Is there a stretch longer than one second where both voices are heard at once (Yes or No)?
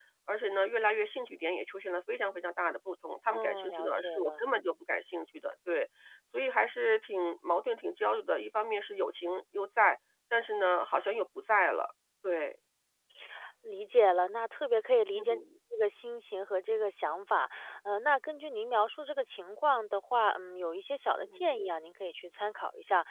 Yes